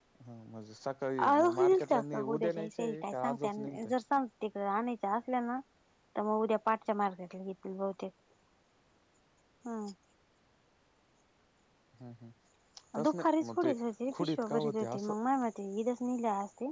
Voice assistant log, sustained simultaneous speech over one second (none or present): present